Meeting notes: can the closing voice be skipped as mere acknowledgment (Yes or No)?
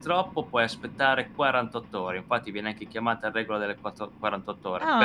No